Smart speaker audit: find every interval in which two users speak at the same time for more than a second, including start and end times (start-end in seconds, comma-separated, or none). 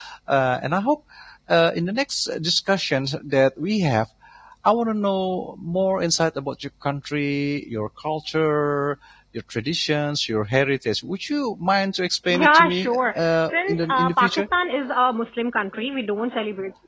12.3-14.5